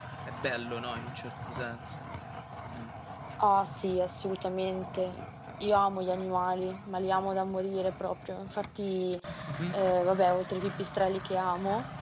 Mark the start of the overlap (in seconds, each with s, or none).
none